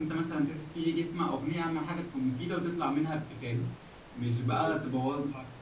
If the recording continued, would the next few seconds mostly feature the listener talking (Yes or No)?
No